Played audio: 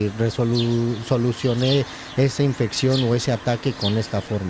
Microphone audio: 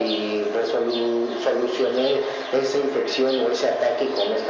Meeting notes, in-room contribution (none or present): none